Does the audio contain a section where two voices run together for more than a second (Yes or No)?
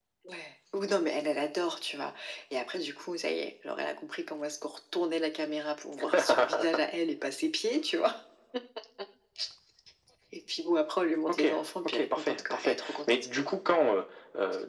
Yes